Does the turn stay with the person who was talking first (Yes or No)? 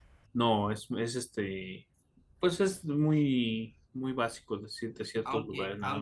No